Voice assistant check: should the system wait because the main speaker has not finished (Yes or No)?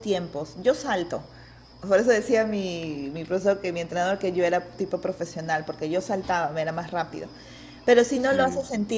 Yes